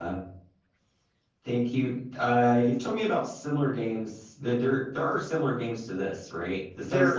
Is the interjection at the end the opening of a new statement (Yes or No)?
No